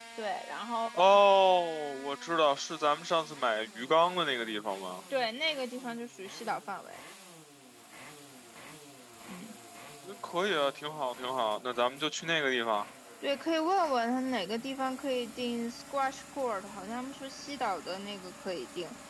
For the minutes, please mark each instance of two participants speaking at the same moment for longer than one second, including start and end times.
none

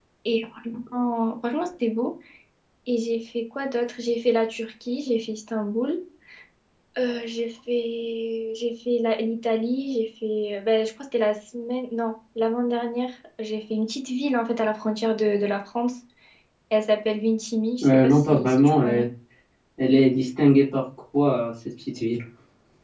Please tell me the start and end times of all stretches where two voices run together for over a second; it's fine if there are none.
17.8-19.0

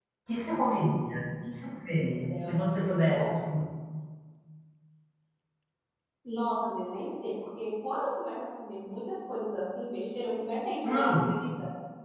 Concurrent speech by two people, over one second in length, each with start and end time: 2.0-3.3

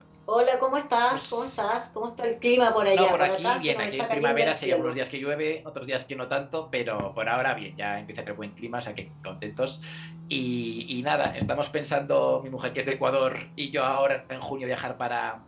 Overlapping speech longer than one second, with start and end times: 2.9-5.0

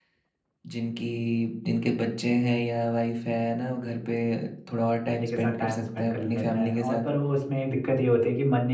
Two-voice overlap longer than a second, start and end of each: 5.1-7.1

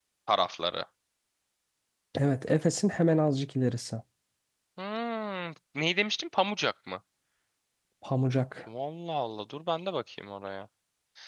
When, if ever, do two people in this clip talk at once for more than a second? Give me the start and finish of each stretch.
none

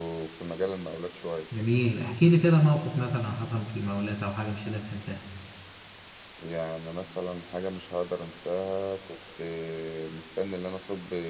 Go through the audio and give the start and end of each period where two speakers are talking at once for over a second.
none

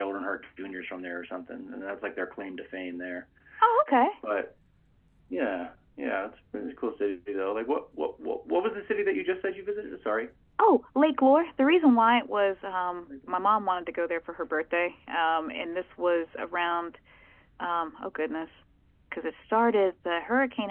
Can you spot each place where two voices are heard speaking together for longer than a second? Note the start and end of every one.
none

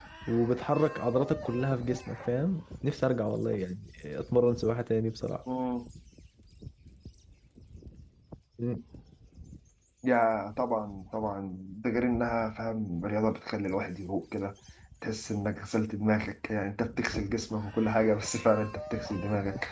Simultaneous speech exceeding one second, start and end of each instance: none

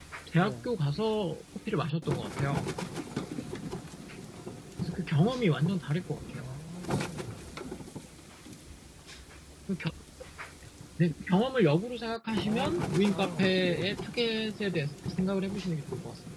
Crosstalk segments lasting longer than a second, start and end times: 12.4-13.9

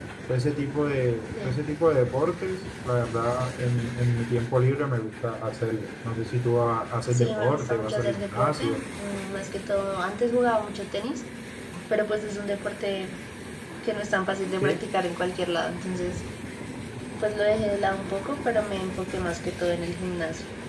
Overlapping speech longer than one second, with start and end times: 7.1-8.8

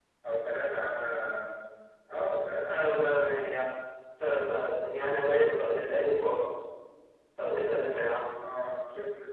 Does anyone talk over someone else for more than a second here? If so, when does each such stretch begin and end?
none

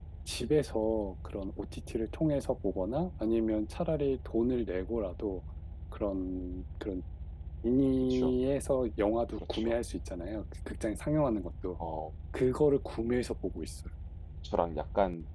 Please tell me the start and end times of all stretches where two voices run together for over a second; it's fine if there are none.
none

